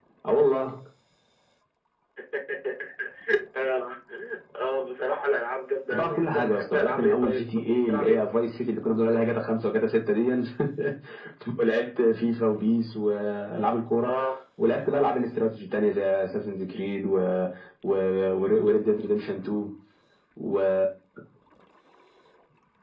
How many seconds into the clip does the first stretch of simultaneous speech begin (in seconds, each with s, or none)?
5.9 s